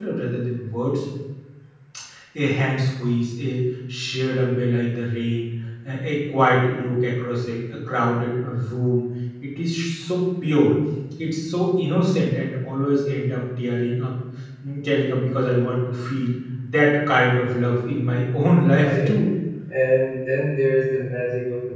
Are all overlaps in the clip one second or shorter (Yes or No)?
Yes